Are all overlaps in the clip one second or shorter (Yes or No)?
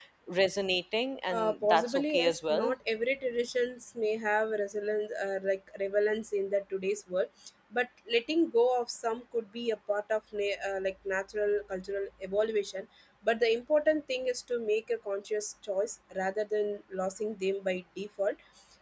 No